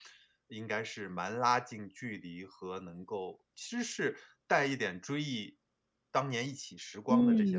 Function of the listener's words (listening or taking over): taking over